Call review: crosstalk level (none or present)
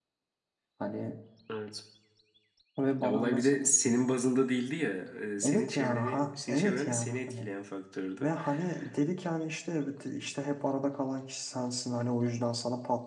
present